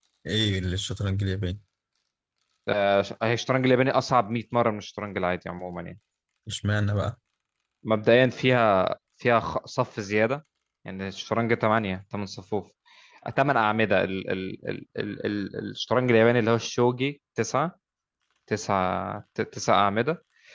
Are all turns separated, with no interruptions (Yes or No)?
Yes